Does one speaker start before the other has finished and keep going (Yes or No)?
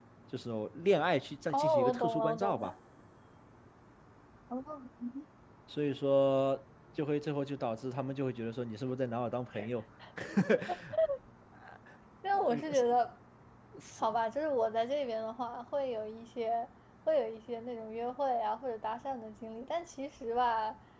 Yes